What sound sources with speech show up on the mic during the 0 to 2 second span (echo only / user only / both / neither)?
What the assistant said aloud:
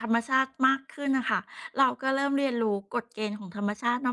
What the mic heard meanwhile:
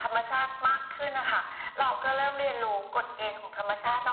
echo only